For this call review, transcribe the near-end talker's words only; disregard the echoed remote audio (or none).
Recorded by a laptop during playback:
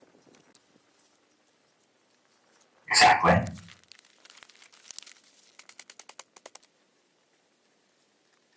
exactly.